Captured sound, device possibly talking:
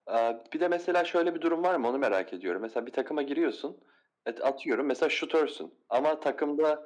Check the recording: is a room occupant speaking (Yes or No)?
No